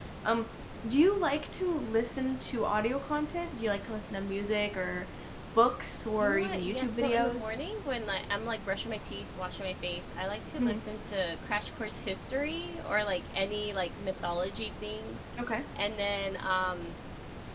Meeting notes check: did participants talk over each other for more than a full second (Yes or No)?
Yes